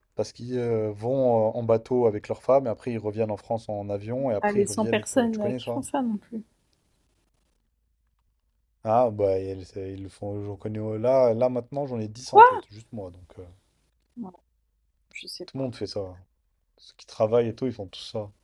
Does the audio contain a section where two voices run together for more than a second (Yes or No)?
Yes